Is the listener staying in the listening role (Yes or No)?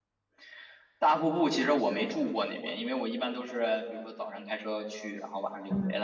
No